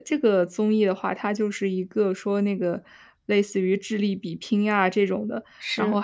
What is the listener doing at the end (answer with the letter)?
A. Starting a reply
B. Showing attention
B